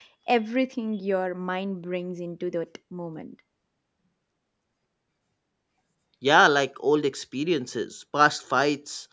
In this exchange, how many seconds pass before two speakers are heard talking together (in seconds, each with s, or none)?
none